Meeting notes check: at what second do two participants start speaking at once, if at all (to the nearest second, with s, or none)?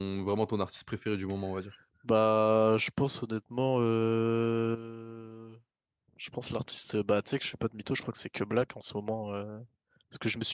none